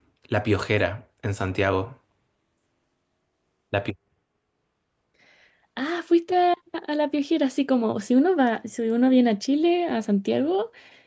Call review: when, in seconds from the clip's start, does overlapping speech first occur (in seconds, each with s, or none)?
none